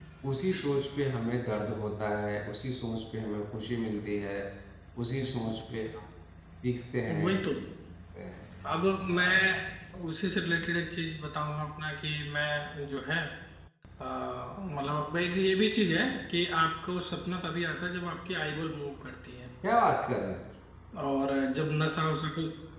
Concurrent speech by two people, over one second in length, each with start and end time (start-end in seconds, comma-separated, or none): none